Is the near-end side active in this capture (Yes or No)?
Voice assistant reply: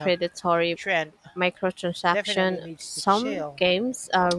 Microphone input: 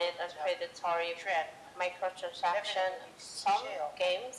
No